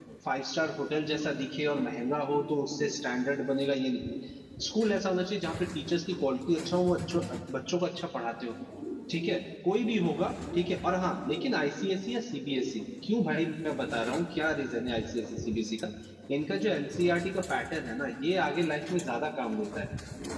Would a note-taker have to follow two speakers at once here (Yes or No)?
No